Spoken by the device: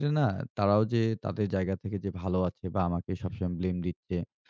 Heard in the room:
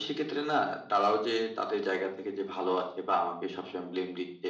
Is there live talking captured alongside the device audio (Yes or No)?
No